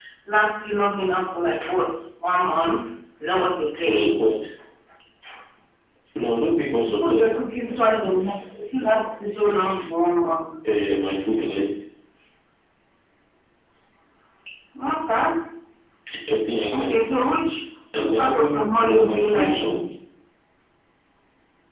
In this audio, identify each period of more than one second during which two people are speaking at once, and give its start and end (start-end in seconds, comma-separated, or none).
18.0-19.8